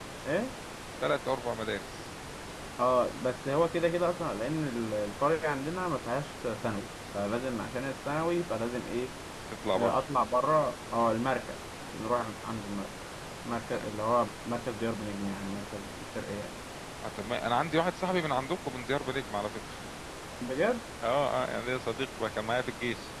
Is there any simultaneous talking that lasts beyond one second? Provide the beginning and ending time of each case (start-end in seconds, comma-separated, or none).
none